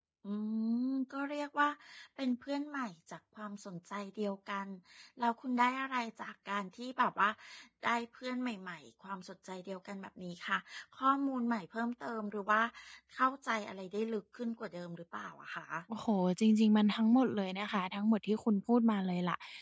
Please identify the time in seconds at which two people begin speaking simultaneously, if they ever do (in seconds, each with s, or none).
none